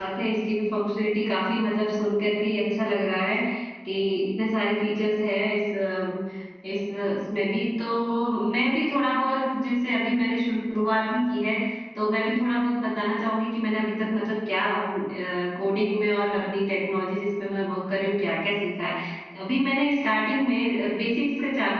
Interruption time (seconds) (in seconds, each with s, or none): none